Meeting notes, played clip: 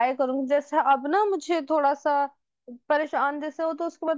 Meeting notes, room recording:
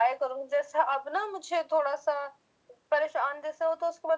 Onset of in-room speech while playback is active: none

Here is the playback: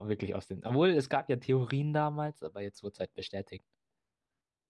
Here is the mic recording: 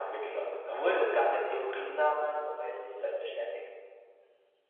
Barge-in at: none

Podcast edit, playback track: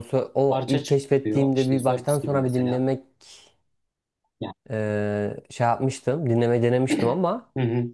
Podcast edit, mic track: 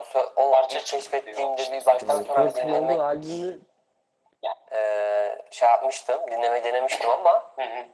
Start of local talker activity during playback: 2.0 s

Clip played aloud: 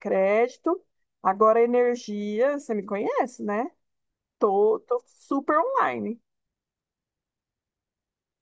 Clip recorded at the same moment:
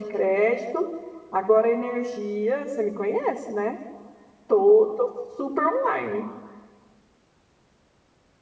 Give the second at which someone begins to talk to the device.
none

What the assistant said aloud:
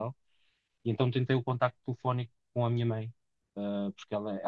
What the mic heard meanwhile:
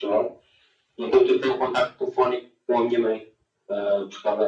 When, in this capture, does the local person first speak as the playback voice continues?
none

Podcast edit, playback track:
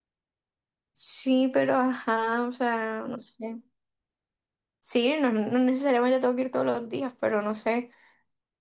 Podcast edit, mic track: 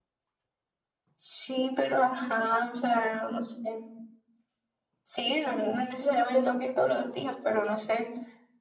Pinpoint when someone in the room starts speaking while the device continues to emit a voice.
none

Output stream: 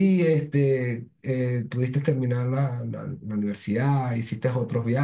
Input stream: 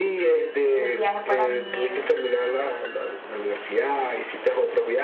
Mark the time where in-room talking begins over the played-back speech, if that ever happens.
0.5 s

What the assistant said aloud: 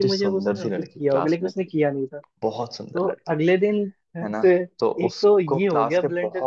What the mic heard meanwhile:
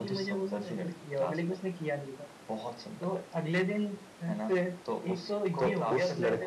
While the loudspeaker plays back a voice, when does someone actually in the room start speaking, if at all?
5.6 s

